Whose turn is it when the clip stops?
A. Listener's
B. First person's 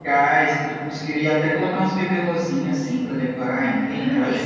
A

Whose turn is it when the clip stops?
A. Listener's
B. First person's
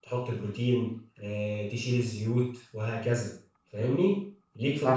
A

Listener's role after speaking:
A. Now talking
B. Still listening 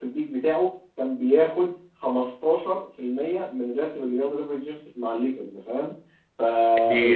B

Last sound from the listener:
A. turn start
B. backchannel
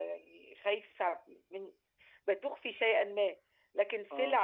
B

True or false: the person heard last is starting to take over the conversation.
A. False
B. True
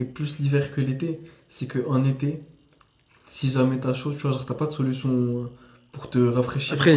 B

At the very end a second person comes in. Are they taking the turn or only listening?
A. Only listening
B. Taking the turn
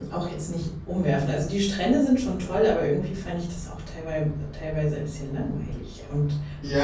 B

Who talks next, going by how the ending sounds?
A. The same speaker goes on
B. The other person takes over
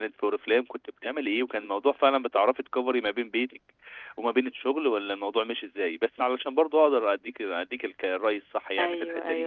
B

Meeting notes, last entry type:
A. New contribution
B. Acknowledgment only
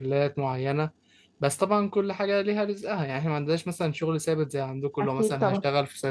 B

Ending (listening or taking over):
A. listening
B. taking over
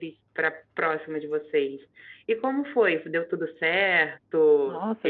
B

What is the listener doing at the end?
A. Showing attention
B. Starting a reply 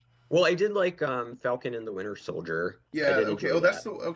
B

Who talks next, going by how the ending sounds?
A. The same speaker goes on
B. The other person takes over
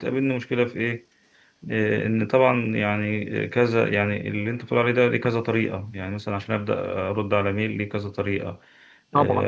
A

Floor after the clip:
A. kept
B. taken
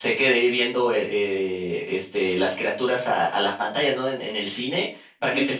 A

